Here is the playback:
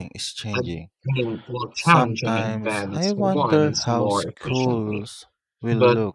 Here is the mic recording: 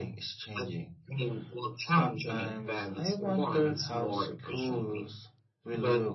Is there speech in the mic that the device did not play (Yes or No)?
No